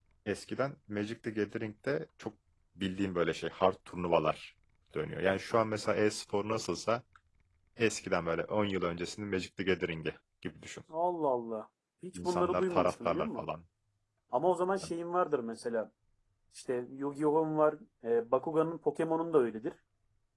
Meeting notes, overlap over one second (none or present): present